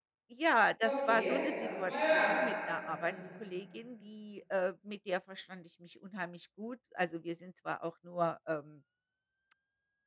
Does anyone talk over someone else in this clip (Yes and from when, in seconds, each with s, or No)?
Yes, from 0.8 s